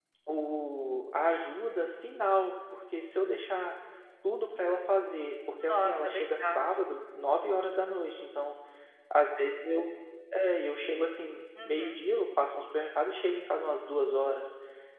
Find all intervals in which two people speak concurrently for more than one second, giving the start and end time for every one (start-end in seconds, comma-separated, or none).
5.6-6.8